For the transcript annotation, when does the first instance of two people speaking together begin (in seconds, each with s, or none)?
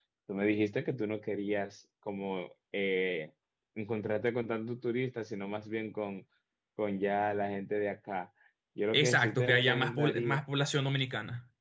8.9 s